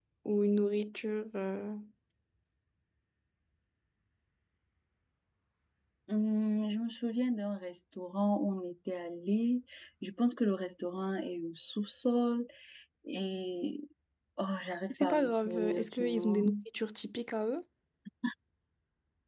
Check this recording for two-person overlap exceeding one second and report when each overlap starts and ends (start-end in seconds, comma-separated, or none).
14.9-16.5